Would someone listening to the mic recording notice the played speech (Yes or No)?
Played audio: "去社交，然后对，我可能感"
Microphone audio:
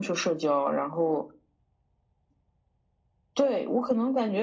Yes